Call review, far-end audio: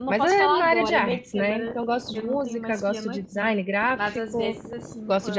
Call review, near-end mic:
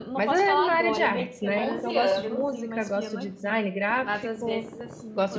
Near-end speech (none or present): present